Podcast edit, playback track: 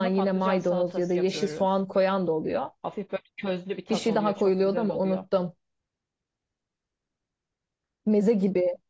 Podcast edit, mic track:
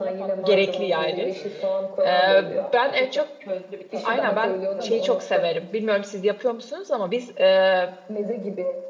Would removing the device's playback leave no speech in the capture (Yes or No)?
No